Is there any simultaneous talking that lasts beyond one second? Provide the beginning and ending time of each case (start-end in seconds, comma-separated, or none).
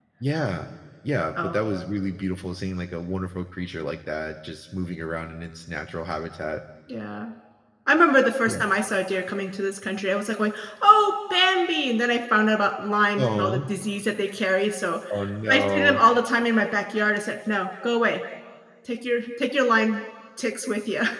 none